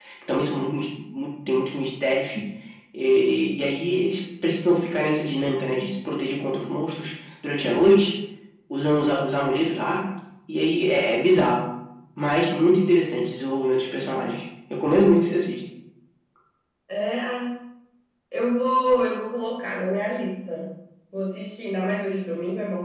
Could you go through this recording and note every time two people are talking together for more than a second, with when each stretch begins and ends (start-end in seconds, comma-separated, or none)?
none